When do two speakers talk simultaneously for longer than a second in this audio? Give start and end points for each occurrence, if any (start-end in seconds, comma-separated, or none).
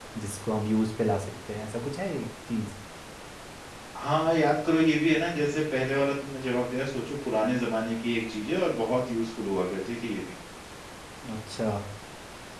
none